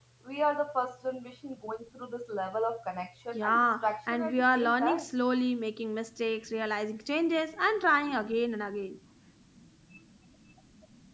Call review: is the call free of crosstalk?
No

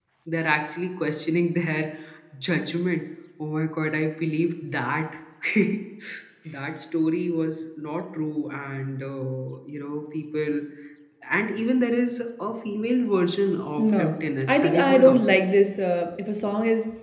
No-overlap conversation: No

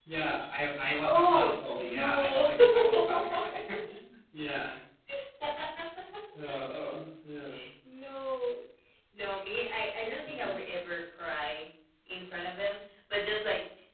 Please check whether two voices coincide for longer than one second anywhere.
Yes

